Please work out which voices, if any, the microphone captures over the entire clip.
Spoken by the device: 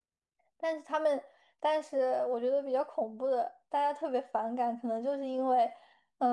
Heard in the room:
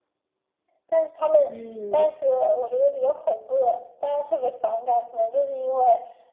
both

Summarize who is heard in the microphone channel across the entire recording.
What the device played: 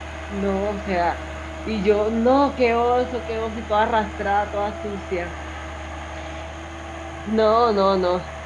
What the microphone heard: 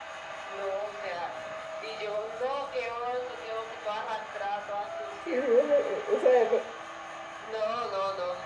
both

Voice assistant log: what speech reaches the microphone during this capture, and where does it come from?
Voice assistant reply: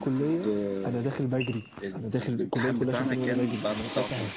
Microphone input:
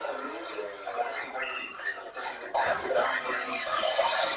echo only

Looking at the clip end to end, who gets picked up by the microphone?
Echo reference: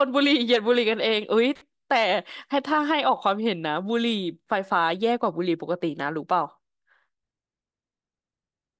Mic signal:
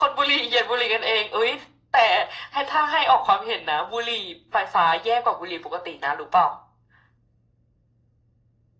echo only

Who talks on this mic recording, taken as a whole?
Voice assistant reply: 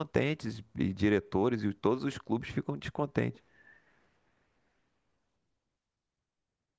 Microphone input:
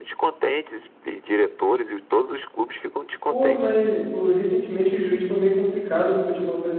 both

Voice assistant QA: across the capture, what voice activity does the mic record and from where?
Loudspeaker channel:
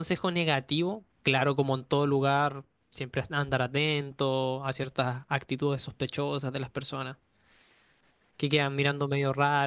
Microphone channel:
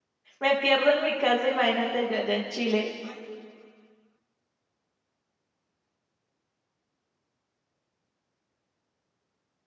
user only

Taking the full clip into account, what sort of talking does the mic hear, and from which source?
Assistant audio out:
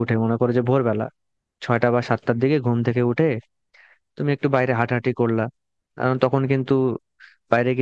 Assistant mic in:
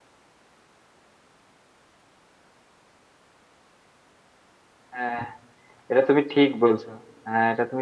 user only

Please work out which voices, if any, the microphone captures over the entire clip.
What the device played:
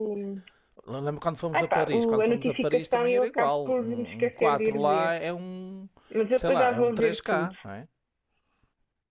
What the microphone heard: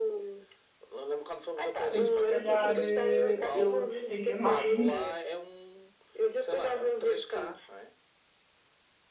both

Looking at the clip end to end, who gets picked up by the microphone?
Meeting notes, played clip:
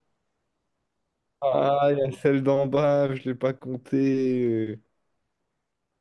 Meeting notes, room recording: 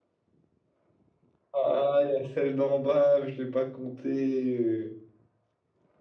echo only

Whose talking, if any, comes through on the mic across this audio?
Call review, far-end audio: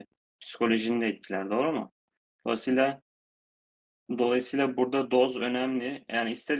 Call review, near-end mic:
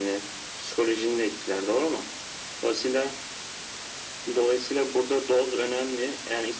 echo only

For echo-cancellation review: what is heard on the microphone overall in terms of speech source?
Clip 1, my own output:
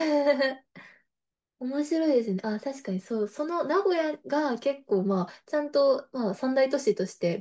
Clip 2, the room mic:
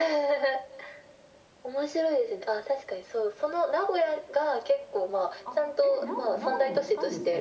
both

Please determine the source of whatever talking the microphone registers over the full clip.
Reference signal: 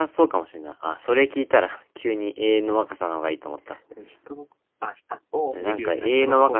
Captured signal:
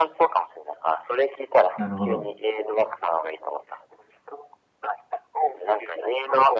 both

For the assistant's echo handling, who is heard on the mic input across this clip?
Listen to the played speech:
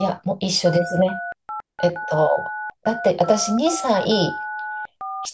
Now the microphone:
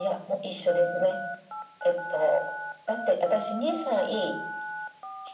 echo only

